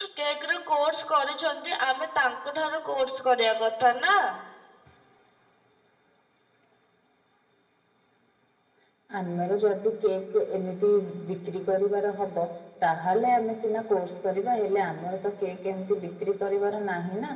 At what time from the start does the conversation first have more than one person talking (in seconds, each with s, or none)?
none